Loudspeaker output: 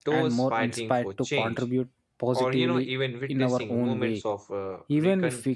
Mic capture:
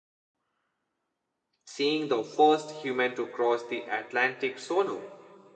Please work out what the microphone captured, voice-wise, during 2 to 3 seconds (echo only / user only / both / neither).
user only